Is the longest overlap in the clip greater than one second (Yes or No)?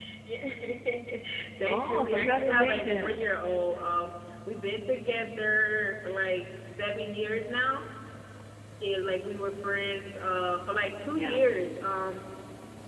Yes